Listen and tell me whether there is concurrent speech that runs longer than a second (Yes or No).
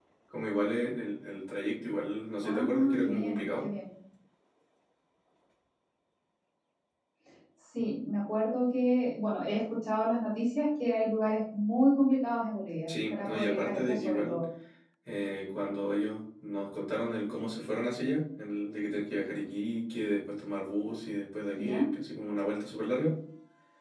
Yes